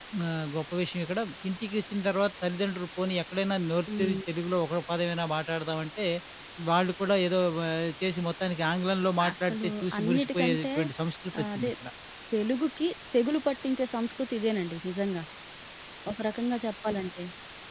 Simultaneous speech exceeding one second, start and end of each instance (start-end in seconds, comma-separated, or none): 9.3-10.7